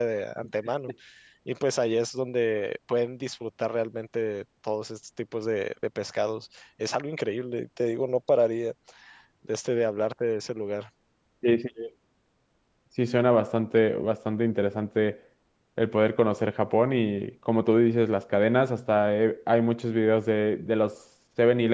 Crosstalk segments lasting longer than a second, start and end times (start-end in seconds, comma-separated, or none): none